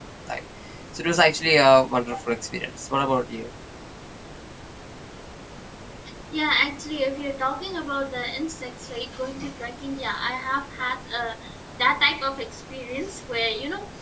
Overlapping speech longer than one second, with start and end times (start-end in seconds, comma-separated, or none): none